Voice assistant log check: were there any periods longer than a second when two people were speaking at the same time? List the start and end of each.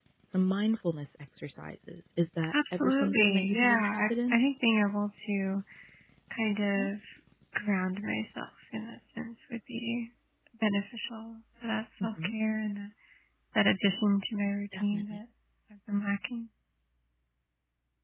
2.5-4.4

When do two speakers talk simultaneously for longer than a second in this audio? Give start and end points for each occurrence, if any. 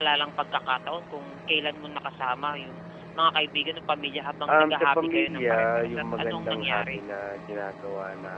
4.5-7.0

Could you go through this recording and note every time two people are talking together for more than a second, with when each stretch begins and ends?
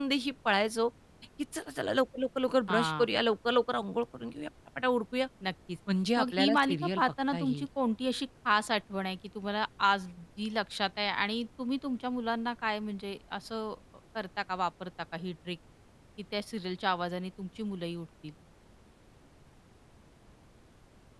6.2-7.7

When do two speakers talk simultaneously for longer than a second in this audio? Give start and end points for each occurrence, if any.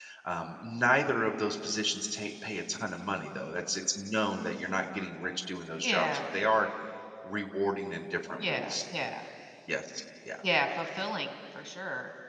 none

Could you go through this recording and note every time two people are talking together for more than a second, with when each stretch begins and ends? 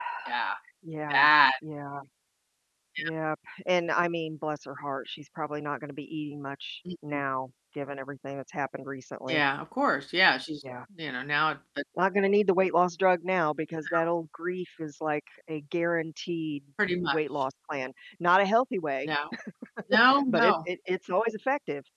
none

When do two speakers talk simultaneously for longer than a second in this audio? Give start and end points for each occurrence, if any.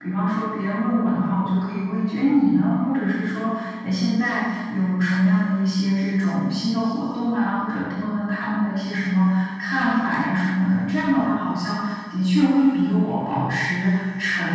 none

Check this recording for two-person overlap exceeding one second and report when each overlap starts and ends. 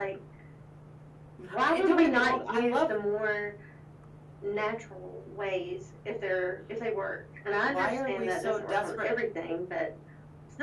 1.6-2.9, 7.6-9.1

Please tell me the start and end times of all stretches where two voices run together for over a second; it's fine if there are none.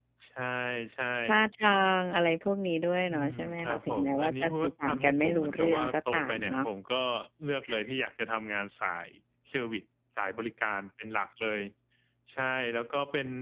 3.1-6.6

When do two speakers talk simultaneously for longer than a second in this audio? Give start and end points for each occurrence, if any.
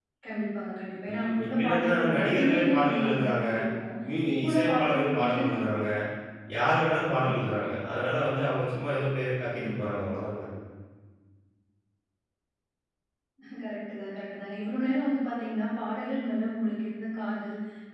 1.1-3.4, 4.3-5.8

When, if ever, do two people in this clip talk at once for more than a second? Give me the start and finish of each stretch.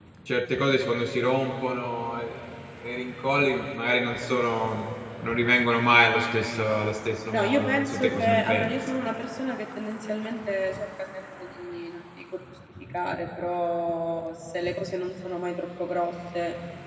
7.3-8.7

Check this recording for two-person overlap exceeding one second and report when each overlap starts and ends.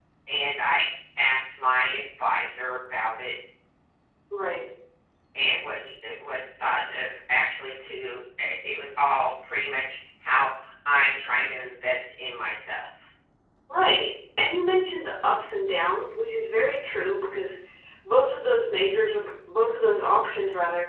none

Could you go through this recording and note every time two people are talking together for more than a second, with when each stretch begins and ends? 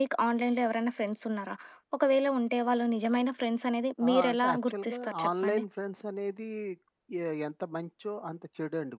4.1-5.6

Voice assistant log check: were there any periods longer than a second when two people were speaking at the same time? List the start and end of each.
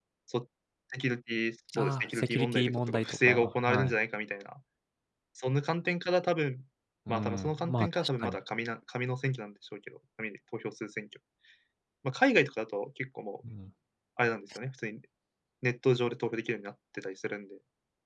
1.8-3.9, 7.1-8.4

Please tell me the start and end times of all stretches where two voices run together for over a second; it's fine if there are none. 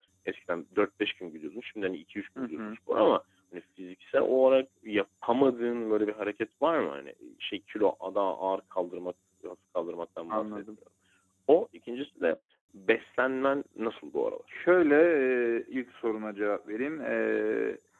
none

